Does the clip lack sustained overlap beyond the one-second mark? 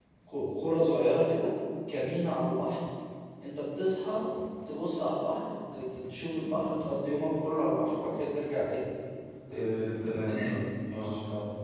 No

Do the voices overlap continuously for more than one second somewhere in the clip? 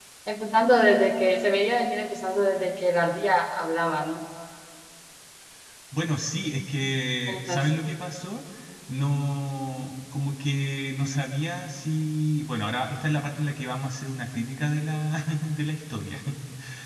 No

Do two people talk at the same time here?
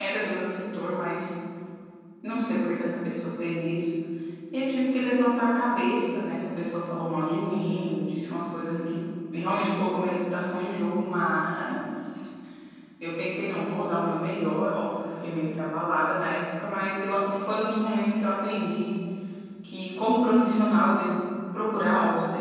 No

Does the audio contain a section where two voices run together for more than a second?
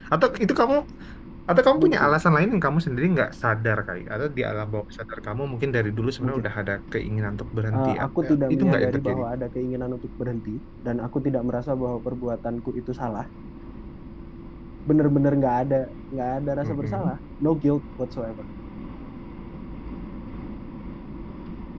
Yes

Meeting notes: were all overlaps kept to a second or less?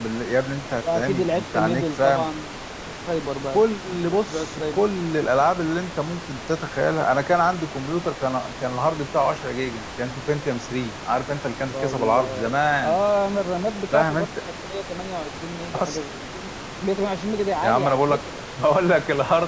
No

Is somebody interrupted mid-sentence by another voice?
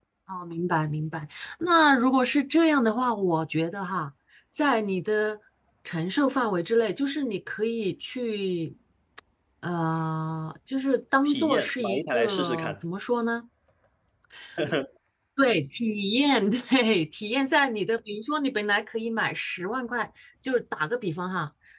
Yes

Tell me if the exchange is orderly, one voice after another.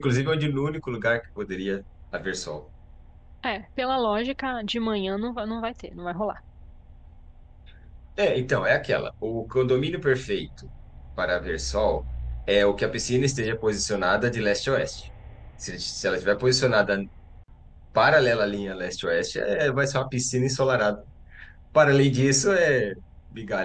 Yes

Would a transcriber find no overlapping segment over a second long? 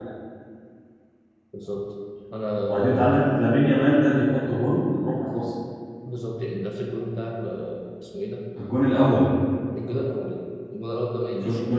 Yes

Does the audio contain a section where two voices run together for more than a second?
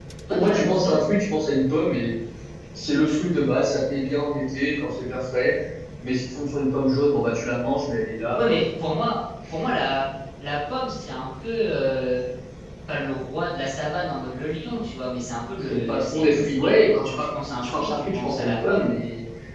Yes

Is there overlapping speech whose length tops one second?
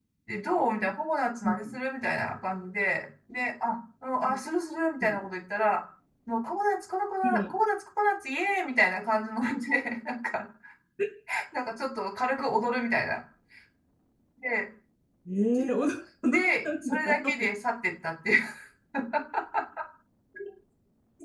Yes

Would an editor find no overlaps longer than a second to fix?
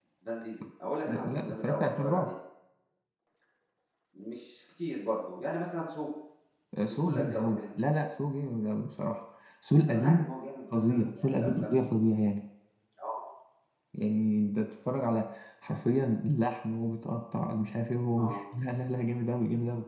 No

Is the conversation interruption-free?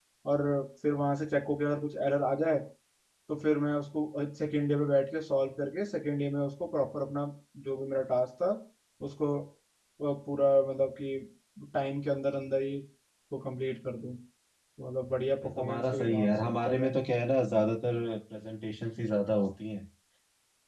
No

